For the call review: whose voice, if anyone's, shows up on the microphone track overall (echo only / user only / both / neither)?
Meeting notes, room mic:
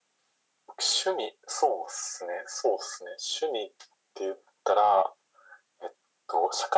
echo only